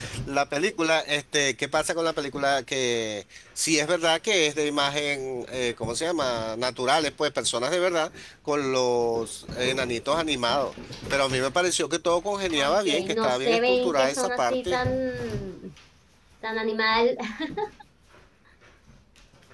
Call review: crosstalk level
present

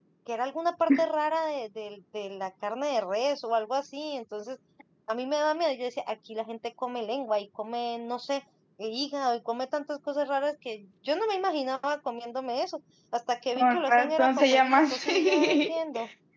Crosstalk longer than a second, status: present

